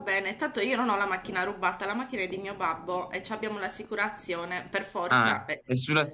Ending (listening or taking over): taking over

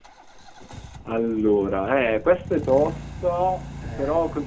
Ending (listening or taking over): listening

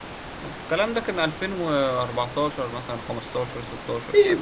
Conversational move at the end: taking over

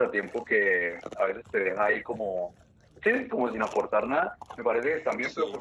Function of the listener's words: listening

